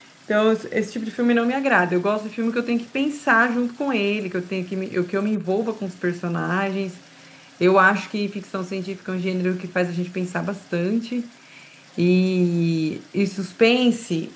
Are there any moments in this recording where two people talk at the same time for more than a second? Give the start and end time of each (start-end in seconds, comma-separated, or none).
none